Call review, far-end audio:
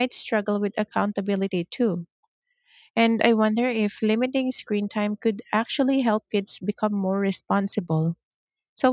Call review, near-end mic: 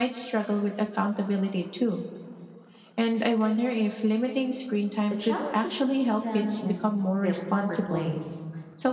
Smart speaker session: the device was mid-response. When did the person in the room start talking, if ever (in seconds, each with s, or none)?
5.1 s